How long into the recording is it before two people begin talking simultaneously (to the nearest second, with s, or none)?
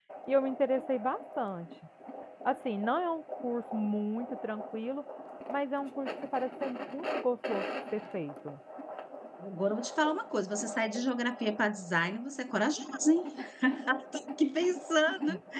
none